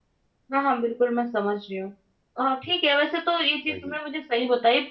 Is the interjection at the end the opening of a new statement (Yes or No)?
No